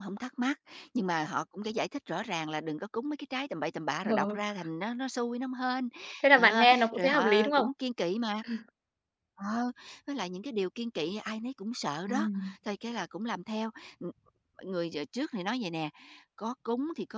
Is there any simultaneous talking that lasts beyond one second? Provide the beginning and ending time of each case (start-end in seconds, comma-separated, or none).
6.3-7.7